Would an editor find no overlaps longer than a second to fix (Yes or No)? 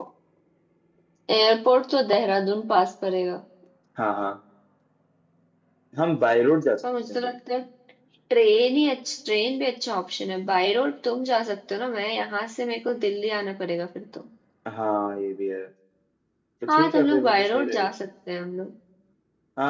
No